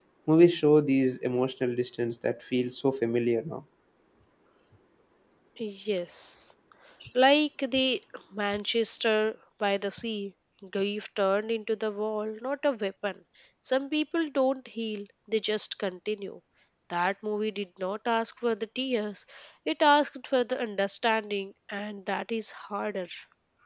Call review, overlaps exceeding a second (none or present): none